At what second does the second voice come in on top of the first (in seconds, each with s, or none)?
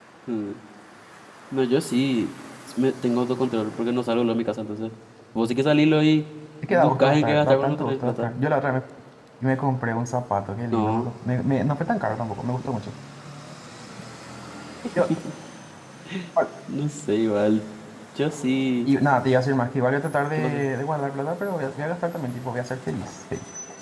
6.7 s